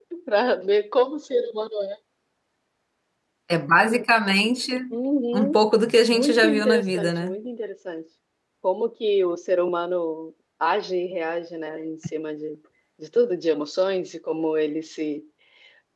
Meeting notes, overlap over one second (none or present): present